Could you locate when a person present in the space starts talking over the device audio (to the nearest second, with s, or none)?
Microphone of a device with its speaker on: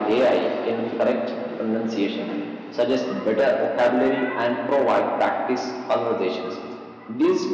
none